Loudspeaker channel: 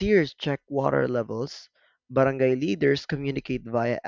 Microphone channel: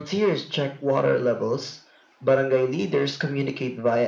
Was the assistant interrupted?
No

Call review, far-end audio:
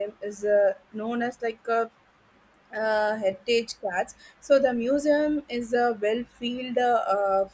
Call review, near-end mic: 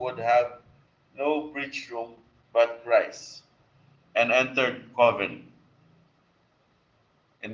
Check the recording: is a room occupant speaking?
Yes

